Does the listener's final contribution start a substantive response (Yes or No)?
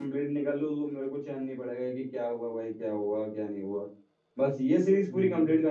No